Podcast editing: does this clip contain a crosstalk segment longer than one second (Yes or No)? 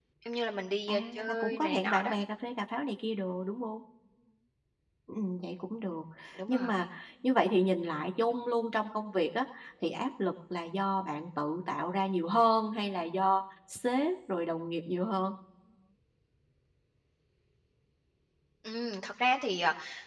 Yes